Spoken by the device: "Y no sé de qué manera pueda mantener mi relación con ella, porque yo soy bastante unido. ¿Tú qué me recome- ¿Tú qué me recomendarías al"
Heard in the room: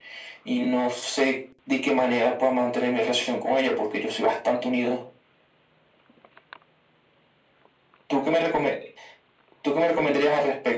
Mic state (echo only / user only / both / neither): echo only